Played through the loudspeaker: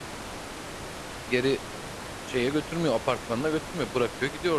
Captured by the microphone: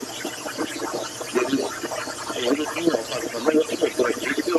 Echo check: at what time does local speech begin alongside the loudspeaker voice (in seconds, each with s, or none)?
none